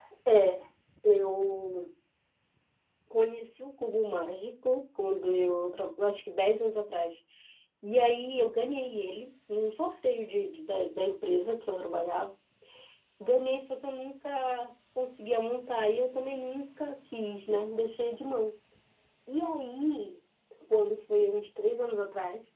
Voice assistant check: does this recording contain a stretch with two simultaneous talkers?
No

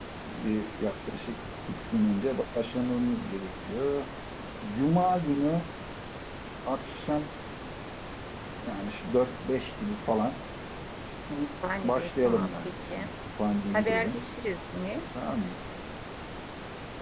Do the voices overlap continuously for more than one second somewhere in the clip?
Yes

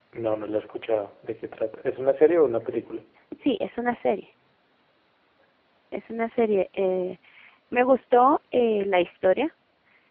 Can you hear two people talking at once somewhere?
No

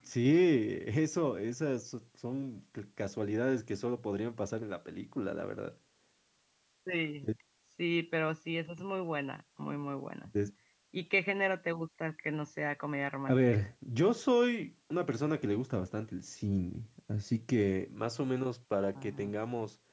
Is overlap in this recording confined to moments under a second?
Yes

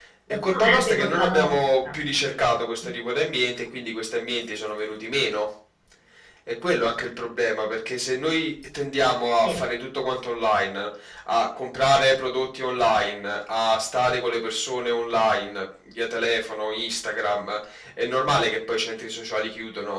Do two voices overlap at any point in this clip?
Yes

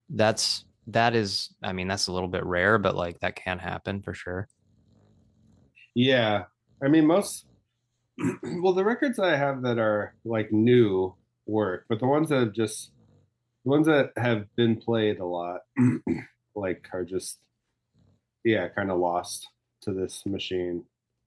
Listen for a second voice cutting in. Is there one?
No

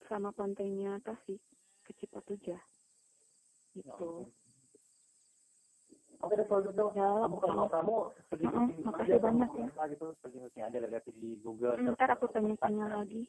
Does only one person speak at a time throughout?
No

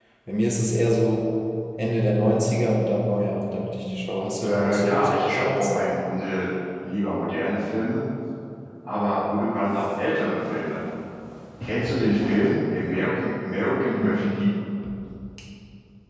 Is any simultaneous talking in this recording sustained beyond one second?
Yes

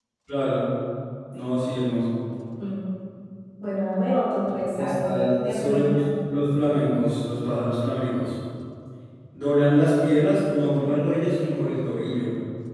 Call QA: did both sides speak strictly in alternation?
No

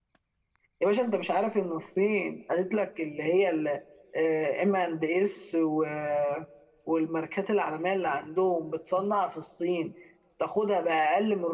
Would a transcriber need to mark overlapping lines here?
No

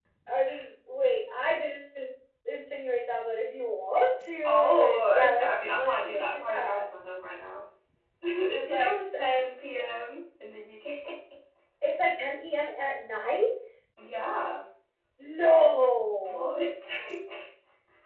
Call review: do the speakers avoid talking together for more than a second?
No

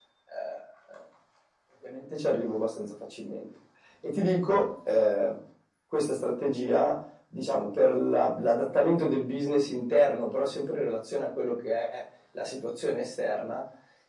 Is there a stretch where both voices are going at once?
No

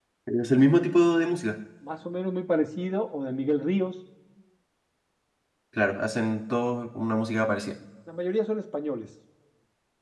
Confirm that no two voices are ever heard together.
Yes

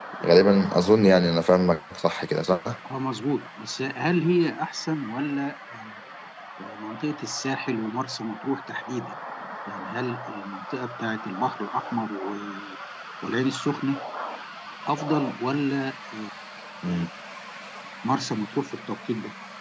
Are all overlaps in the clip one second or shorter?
Yes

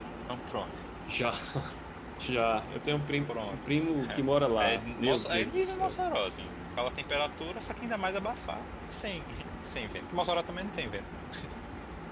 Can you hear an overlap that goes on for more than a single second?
Yes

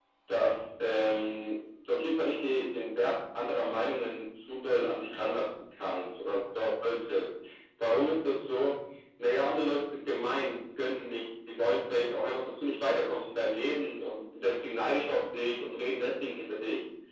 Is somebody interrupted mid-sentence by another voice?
No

